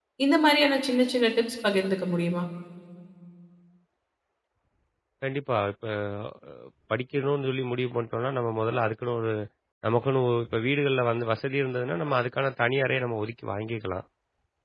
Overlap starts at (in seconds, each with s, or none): none